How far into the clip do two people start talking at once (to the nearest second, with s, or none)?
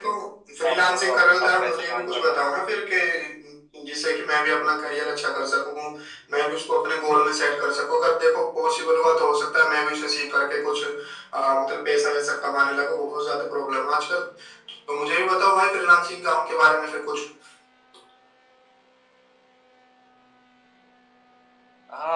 1 s